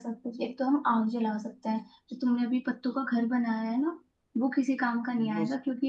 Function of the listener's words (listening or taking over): listening